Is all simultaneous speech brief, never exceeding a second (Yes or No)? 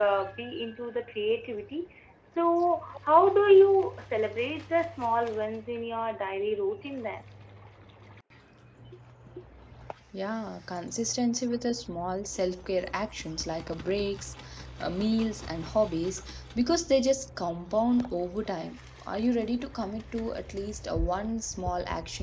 Yes